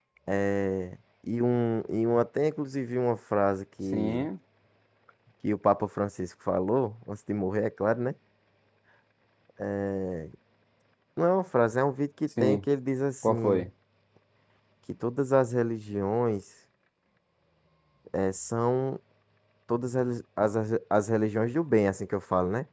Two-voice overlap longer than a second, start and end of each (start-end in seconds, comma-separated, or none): none